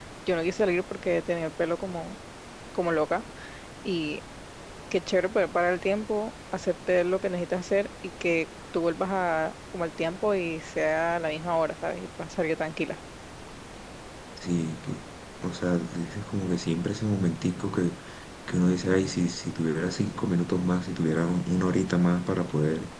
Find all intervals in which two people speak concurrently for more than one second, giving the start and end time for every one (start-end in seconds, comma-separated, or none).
none